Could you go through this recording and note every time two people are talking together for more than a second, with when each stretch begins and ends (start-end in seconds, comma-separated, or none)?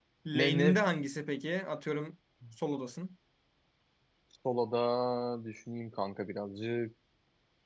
none